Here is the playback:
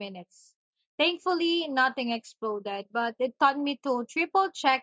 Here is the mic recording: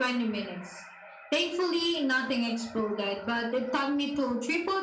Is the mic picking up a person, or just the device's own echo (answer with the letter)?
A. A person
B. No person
B